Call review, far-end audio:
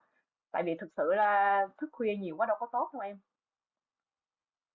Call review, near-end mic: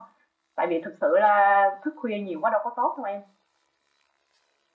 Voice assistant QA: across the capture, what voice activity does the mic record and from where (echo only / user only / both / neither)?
echo only